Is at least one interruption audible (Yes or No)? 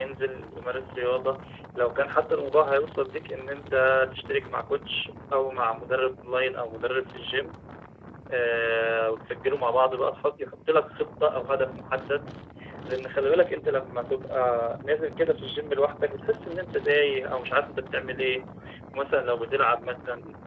No